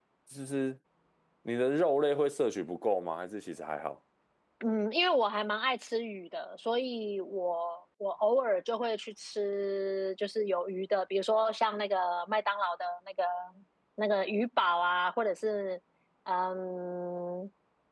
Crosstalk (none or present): none